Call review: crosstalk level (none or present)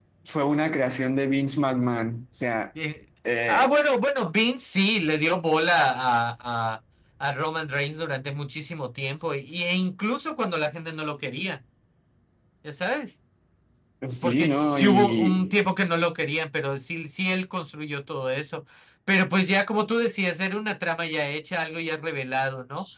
present